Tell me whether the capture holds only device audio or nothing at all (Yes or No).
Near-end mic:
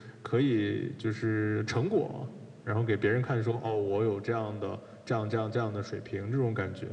Yes